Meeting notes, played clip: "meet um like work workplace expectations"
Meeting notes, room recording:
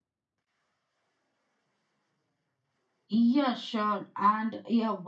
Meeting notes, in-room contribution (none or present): present